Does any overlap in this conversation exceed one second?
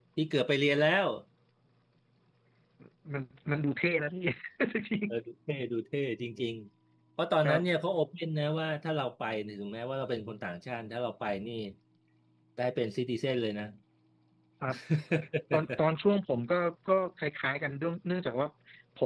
No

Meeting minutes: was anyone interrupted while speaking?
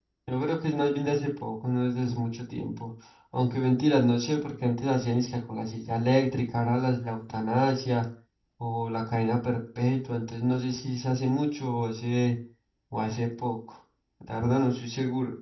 No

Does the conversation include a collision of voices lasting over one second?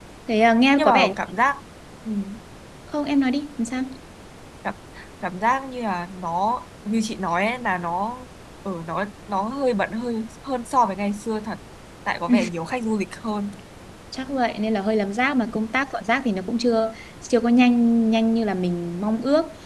No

